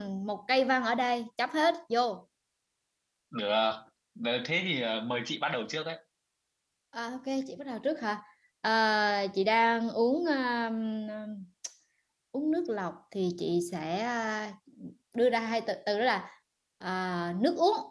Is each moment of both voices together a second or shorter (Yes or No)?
Yes